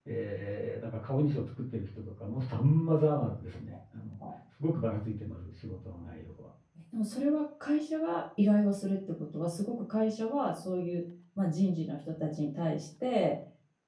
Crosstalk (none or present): none